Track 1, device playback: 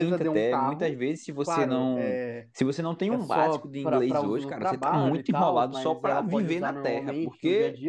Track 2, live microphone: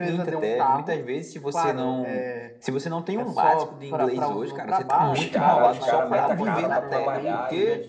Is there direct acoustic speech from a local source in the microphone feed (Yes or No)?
Yes